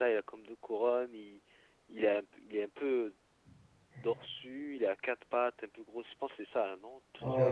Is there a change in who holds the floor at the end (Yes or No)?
Yes